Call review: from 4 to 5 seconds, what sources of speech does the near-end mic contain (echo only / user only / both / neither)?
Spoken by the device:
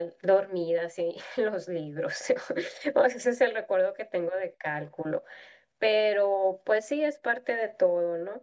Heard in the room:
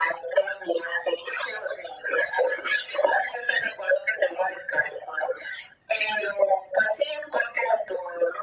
echo only